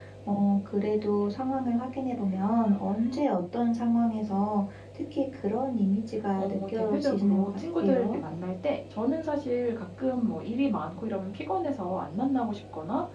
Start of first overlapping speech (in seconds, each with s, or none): 6.4 s